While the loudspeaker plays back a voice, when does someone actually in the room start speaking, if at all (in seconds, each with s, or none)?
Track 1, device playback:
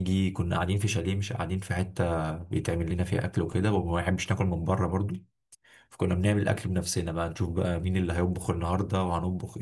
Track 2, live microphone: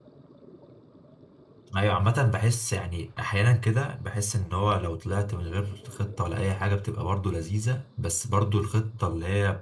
1.8 s